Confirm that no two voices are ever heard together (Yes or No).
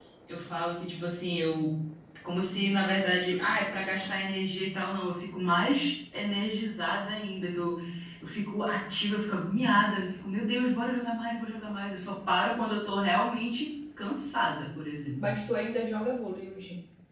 Yes